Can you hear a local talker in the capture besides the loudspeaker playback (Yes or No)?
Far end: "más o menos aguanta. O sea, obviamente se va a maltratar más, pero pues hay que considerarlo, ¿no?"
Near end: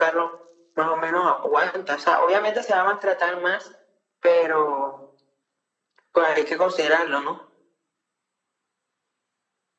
No